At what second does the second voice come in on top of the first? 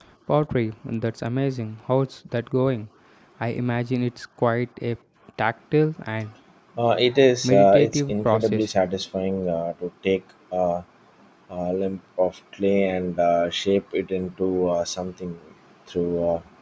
7 s

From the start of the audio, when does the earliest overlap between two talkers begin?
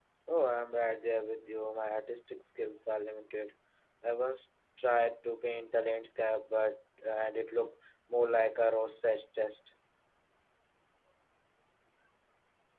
none

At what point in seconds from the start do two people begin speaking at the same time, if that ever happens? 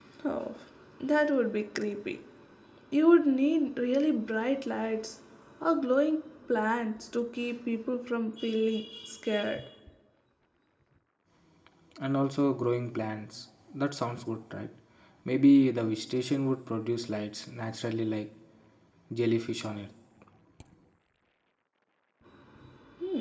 none

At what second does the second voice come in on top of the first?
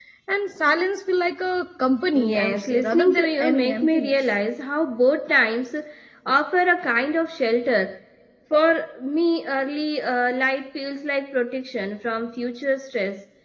2 s

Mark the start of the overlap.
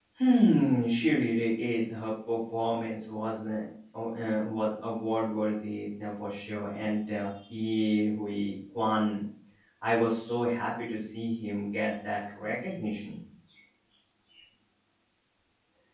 none

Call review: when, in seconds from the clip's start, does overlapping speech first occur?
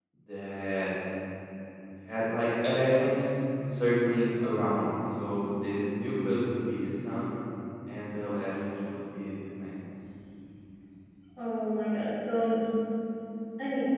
none

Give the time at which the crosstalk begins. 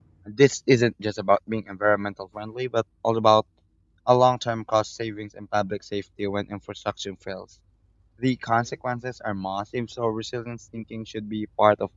none

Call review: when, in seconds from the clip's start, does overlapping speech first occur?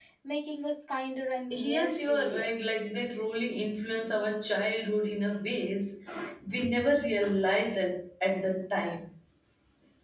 2 s

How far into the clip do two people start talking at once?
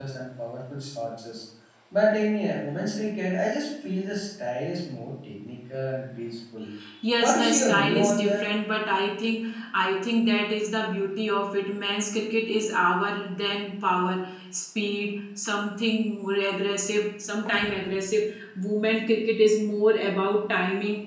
7 s

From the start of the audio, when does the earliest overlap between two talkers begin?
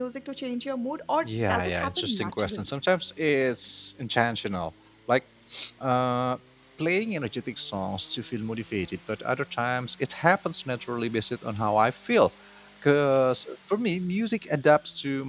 1 s

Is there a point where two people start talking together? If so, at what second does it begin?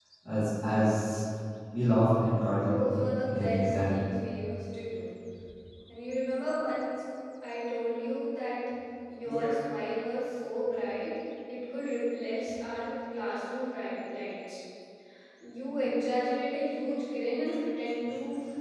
3 s

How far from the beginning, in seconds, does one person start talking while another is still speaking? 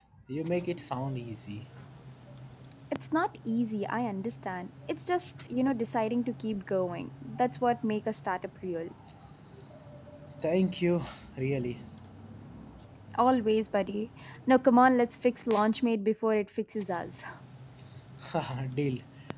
none

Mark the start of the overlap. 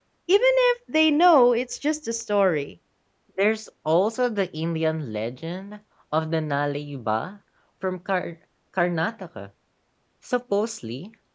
none

